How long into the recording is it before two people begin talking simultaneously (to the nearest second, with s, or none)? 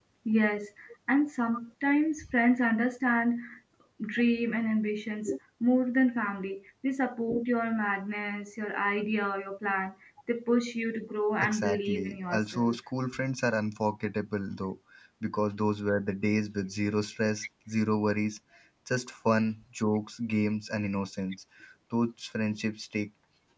11 s